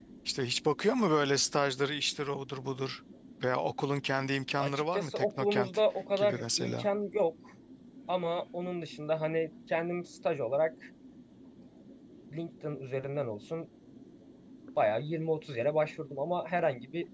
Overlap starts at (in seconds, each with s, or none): 4.6 s